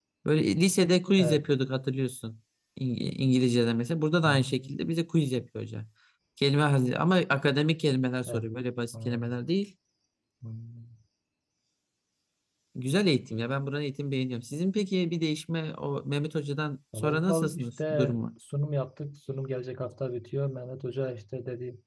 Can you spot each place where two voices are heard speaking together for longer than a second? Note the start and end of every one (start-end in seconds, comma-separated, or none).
16.9-18.2